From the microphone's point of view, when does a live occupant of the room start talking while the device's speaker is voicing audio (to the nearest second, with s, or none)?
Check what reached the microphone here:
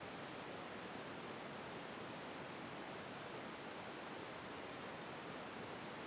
none